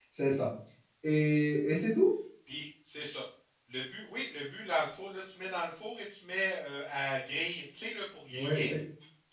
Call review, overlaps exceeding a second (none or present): none